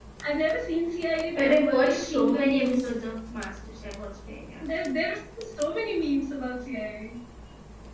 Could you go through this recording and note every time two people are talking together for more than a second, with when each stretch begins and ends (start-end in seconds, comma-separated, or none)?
1.4-2.9